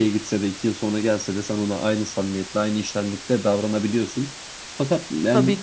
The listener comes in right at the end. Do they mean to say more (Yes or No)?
No